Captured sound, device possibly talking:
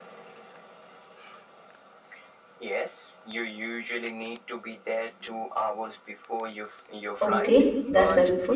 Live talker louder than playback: Yes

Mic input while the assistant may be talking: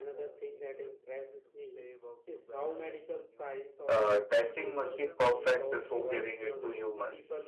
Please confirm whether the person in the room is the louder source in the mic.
Yes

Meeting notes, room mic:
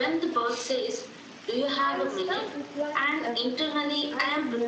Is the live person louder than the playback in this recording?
No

